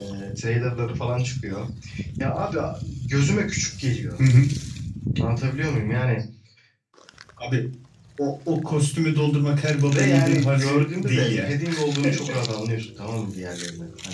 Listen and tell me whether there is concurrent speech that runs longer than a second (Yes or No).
Yes